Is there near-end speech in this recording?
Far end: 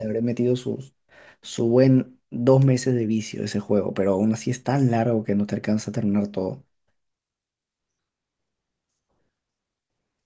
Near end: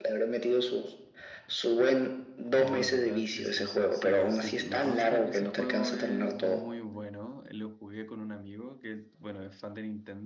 Yes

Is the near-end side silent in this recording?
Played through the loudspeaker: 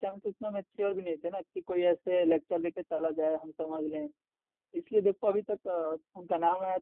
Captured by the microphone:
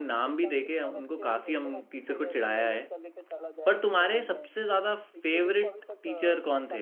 No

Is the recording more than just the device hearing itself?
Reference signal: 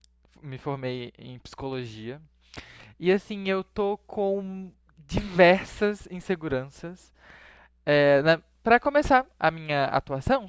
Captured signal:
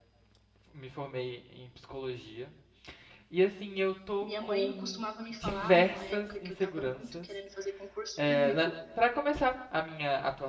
Yes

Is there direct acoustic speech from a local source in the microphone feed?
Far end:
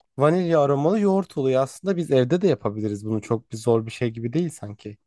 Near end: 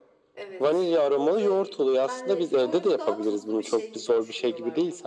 Yes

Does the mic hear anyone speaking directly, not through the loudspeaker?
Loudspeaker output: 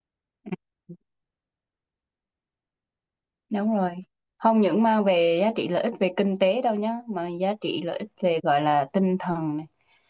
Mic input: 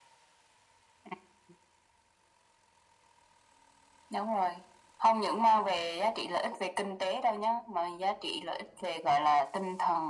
No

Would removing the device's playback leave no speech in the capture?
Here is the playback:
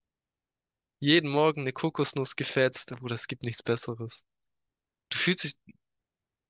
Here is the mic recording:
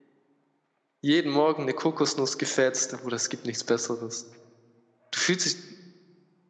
Yes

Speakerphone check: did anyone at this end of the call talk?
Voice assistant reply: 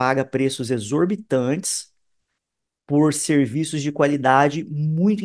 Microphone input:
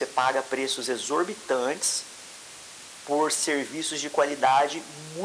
No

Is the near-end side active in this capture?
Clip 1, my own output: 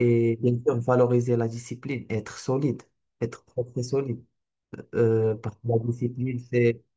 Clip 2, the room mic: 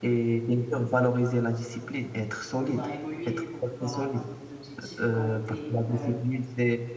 Yes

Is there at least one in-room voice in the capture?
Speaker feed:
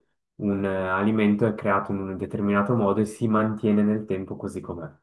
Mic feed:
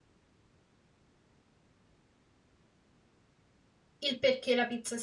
Yes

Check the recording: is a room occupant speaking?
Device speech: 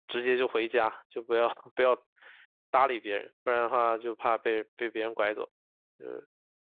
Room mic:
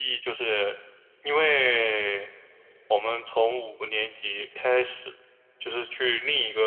Yes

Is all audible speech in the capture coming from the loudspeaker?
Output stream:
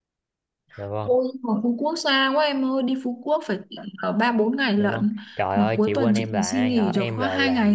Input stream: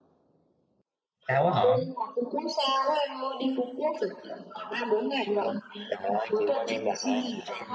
No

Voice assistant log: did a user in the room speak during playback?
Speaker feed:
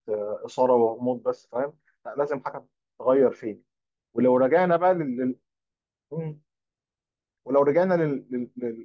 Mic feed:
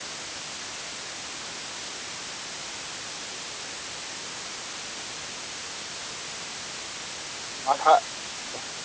Yes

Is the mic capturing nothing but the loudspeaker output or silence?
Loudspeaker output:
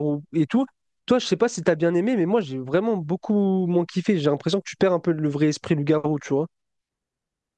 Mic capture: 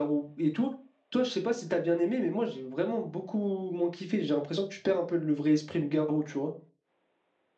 Yes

